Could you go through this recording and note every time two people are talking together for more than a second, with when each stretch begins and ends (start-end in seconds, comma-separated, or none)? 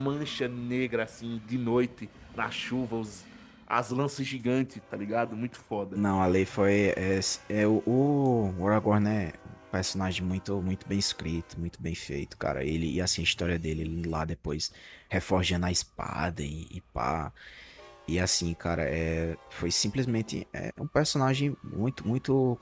none